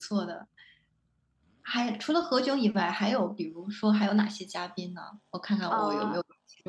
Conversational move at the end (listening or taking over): taking over